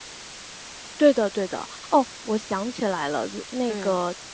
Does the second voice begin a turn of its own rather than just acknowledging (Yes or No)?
No